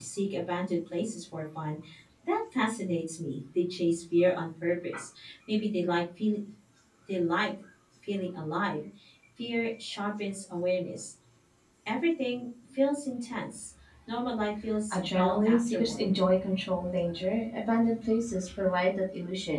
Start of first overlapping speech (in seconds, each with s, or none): 14.9 s